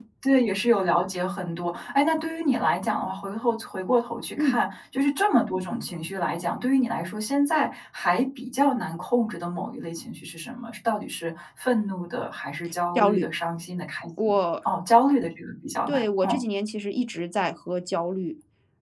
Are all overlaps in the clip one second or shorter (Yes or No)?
Yes